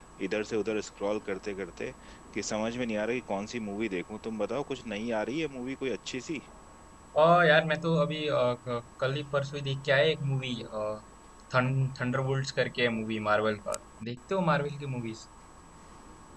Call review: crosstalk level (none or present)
none